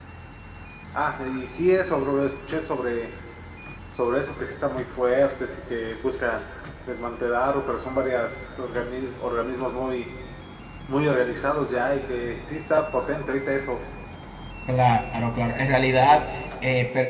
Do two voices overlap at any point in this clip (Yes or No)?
No